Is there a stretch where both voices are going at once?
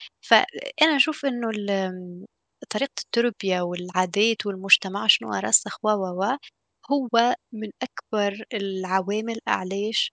No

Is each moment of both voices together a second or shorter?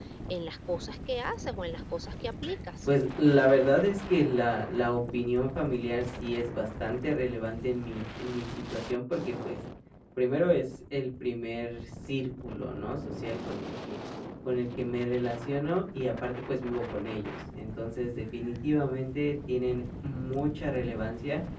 Yes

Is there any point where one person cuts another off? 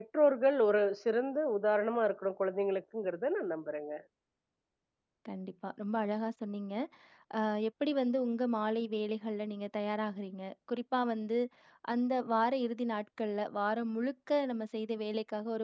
No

